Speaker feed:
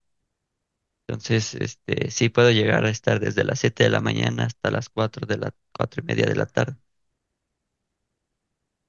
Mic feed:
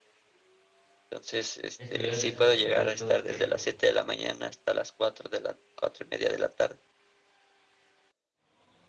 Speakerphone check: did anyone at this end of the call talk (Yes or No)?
Yes